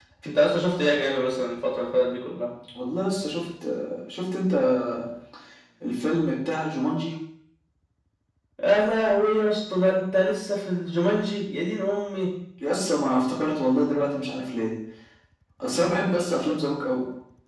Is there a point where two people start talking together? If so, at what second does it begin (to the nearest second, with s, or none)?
none